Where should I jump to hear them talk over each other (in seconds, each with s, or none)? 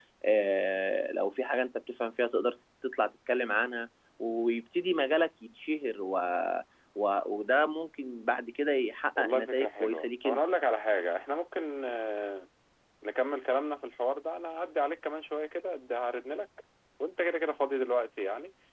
9.2 s